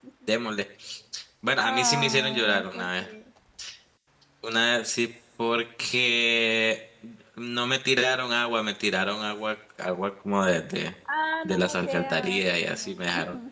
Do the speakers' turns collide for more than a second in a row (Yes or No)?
Yes